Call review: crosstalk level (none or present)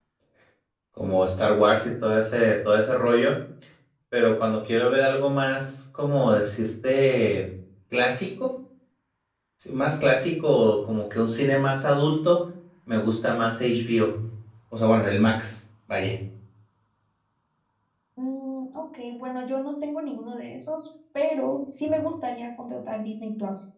none